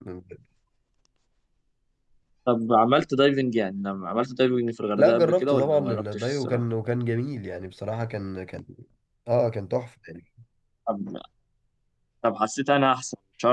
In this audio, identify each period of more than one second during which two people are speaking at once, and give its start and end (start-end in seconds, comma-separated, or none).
5.0-6.6